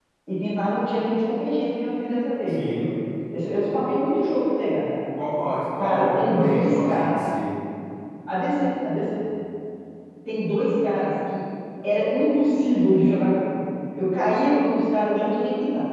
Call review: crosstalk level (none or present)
present